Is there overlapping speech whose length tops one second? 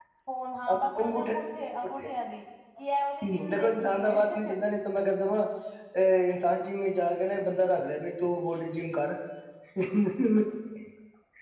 Yes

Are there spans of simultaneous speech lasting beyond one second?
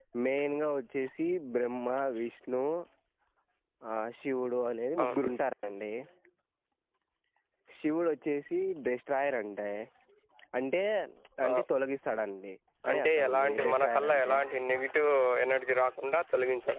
Yes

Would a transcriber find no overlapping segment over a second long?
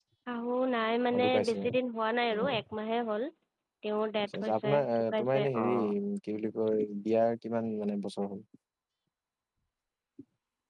No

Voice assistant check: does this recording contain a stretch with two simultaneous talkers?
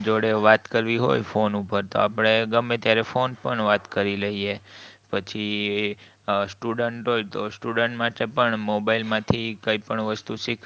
No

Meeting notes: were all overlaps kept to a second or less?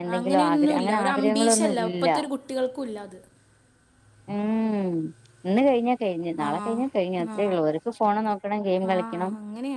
No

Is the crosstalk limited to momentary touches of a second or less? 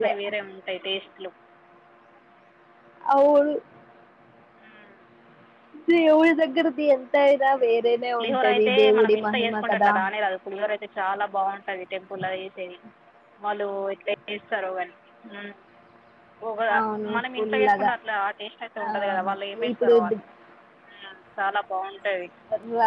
No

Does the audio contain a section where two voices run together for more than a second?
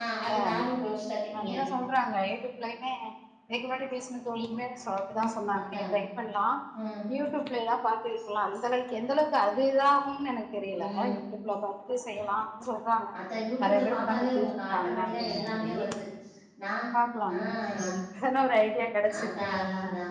Yes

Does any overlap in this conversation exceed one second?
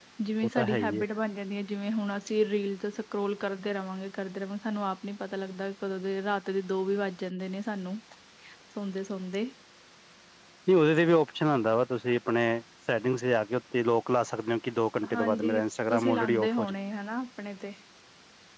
Yes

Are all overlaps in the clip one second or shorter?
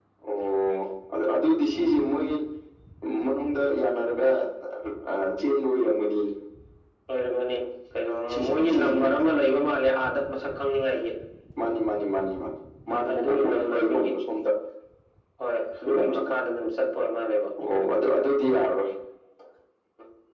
No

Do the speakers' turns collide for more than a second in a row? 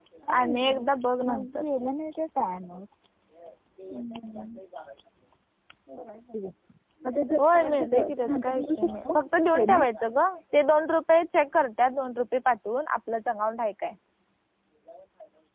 Yes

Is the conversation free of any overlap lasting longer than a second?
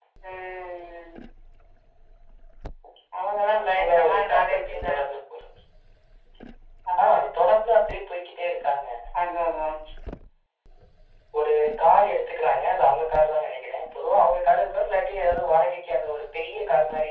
No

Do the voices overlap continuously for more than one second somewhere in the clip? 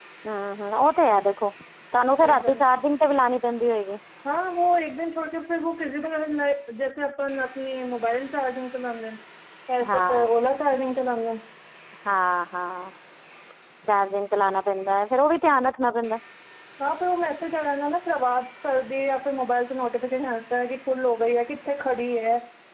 No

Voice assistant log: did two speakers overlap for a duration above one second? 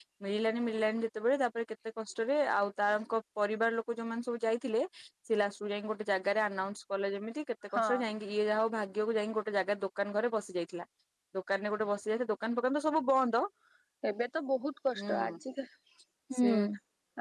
No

